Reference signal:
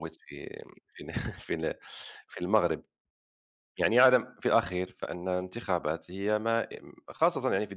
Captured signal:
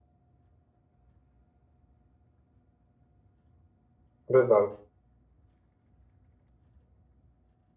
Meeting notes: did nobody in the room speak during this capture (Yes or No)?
No